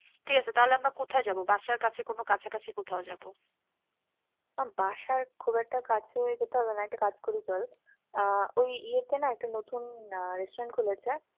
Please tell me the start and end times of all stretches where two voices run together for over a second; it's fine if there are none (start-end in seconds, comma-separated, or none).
none